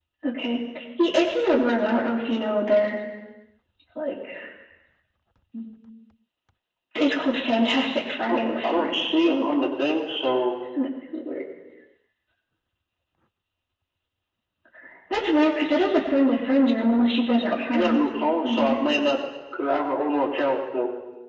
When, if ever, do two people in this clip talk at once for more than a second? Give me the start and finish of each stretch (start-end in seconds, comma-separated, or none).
8.3-9.7